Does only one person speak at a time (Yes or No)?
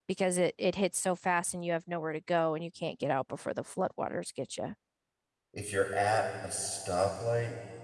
Yes